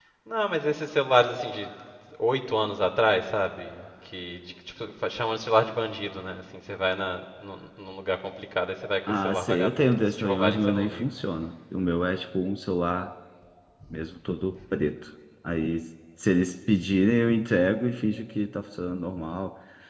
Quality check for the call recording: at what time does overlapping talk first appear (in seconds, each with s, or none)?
9.1 s